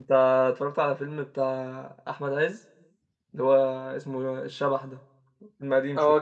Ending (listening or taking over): taking over